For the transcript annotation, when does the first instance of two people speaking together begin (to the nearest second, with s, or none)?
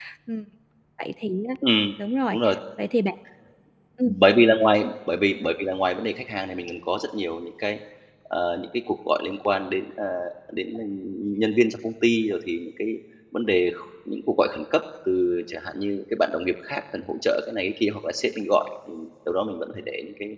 none